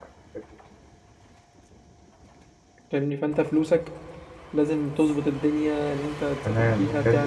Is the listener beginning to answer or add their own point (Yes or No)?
Yes